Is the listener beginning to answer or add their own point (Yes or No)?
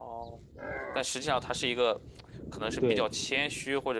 No